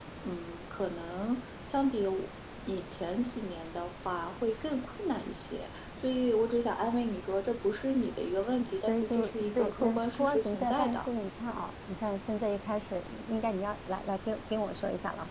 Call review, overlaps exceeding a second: present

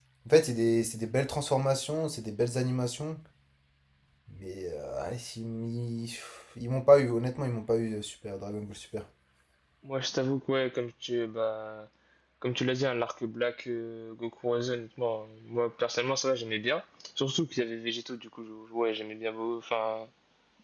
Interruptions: none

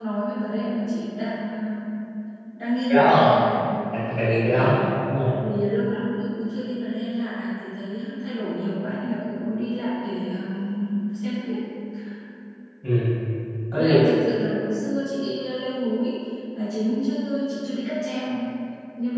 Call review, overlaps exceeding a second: none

